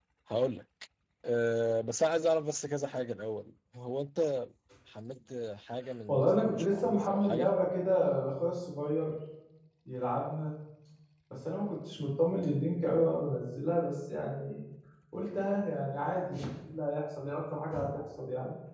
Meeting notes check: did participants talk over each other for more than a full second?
Yes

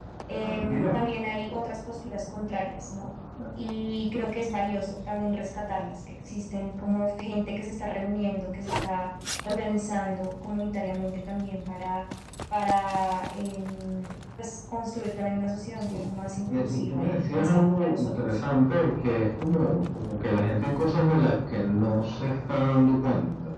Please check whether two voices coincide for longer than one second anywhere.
Yes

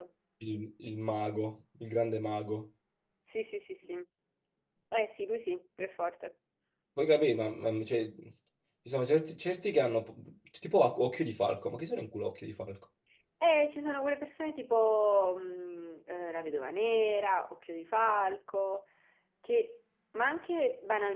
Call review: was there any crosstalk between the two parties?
No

